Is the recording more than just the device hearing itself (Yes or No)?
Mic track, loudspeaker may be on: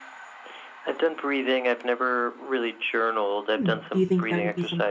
Yes